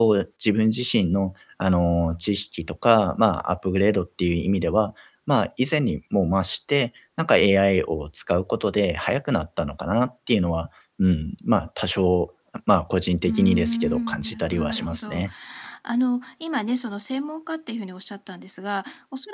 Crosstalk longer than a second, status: present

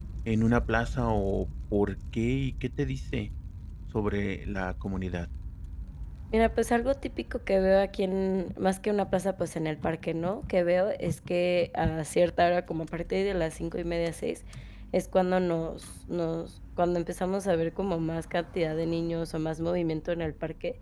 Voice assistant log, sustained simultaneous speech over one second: none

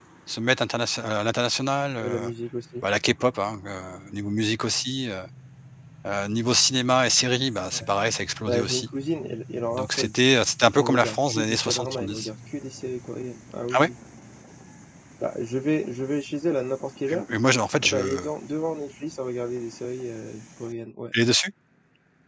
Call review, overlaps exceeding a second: present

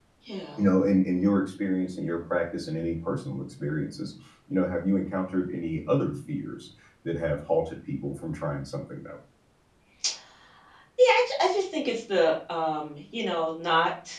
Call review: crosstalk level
none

